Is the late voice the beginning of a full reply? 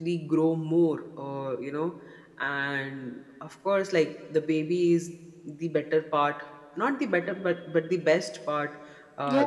Yes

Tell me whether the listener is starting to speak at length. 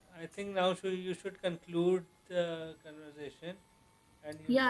Yes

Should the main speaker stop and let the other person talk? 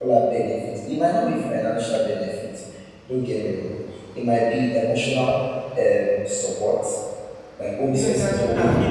Yes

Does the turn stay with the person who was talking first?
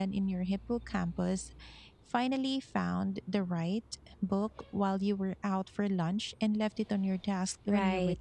No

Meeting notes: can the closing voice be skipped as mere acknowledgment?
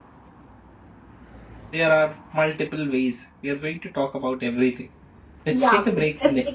No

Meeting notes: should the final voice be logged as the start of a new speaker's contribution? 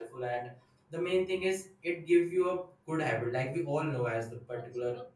No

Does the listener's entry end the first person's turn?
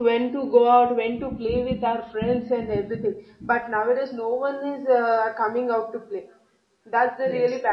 No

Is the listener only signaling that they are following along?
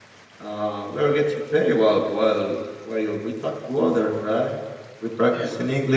Yes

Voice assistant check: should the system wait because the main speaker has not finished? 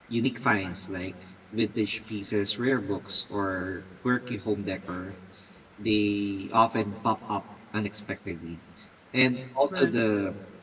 Yes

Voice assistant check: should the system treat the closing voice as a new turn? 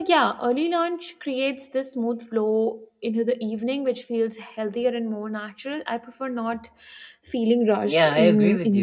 Yes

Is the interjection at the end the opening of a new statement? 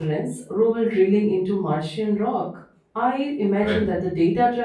No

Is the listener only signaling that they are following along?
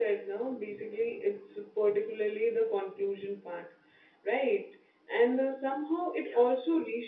Yes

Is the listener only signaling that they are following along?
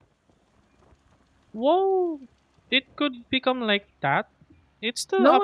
No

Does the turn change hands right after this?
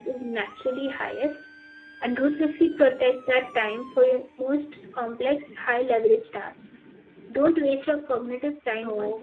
Yes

